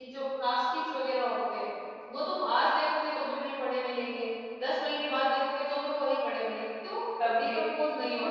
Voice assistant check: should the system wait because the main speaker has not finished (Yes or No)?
No